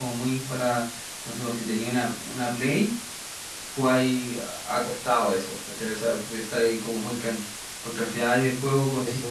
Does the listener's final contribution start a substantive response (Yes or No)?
No